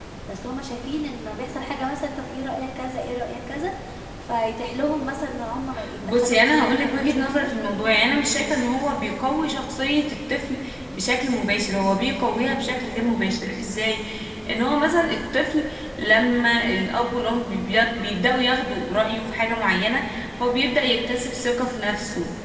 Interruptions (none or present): present